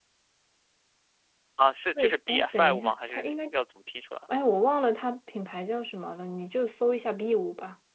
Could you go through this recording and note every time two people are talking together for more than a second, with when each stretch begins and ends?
2.0-3.3

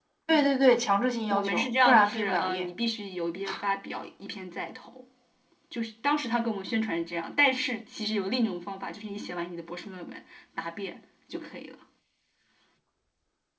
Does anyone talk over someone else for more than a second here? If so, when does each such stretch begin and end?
1.3-2.7

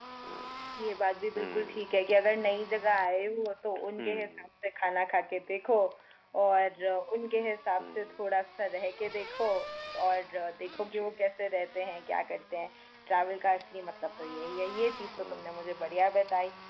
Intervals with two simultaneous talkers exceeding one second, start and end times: none

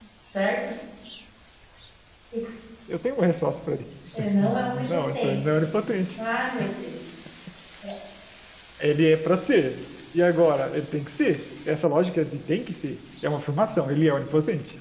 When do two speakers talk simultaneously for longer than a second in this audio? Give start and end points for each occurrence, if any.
4.4-5.7

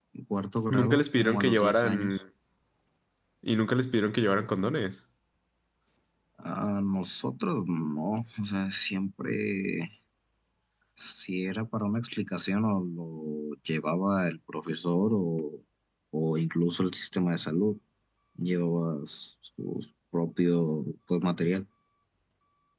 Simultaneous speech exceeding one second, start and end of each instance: 0.7-2.2

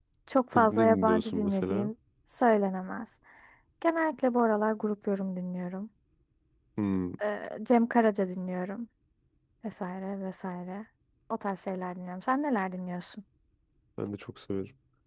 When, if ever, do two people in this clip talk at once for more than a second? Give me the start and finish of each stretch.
0.5-1.9

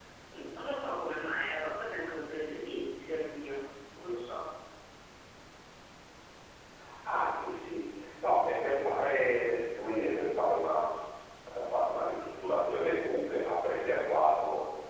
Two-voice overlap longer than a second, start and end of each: none

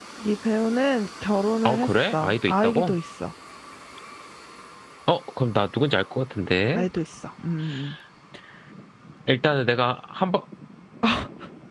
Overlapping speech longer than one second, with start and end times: 1.6-3.0

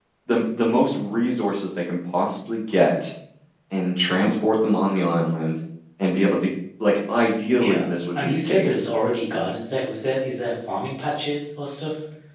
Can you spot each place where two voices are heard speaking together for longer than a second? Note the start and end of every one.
7.6-8.8

